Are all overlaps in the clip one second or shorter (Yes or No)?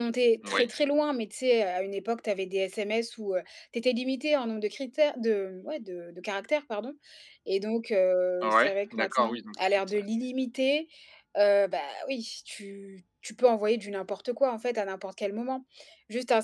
No